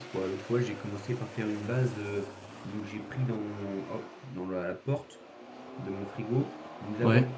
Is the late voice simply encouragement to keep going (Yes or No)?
Yes